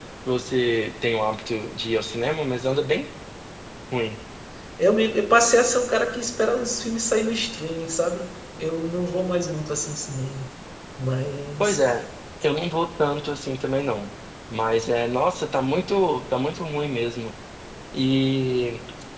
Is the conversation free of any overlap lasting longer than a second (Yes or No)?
Yes